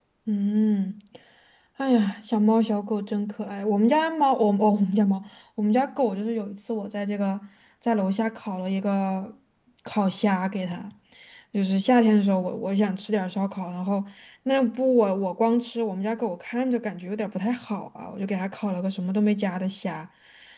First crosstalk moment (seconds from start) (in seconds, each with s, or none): none